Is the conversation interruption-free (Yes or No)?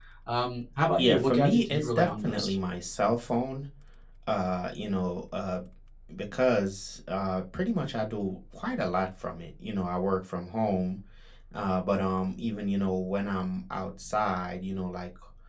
No